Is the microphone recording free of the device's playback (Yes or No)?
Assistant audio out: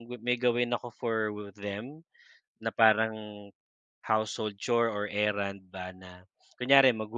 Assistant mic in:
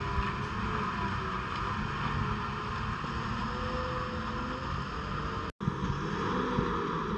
Yes